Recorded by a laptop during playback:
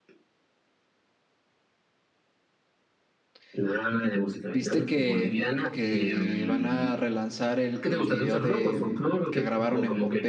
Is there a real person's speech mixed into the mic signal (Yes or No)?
Yes